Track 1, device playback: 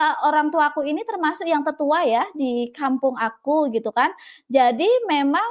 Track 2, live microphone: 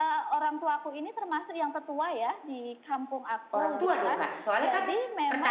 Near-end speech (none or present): present